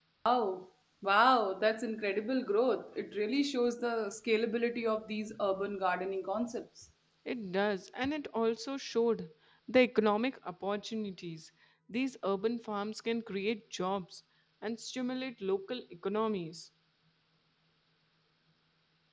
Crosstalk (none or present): none